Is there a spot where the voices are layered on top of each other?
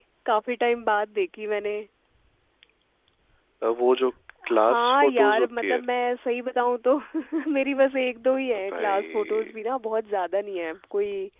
Yes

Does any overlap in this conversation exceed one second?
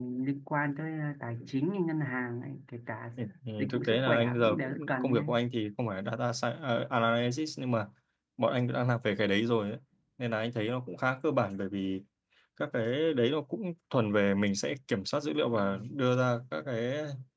Yes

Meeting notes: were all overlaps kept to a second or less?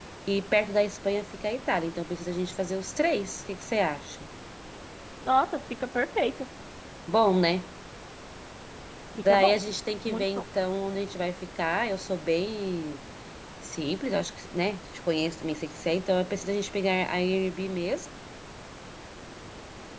Yes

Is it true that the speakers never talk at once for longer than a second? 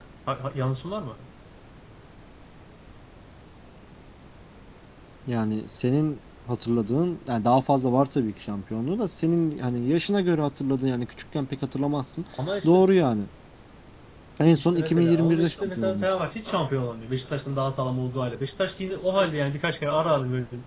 No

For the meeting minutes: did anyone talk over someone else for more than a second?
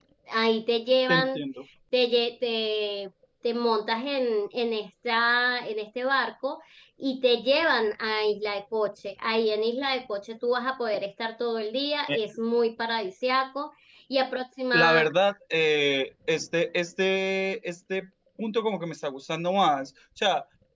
No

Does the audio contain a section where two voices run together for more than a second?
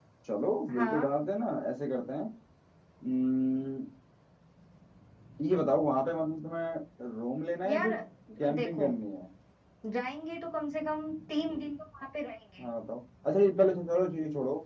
No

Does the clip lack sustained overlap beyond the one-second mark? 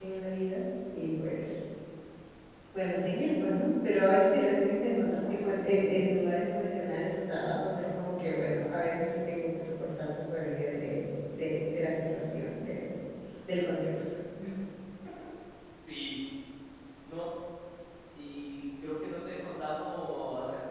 Yes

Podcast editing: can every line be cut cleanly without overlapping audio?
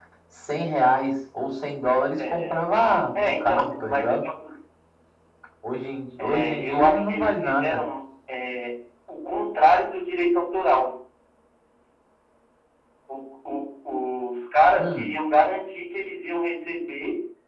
No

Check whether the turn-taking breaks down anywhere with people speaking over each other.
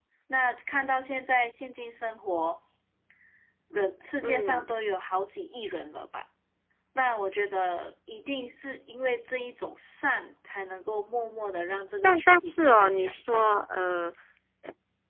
Yes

